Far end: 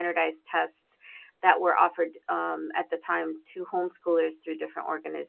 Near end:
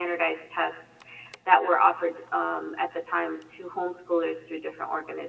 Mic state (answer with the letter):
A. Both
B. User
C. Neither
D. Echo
D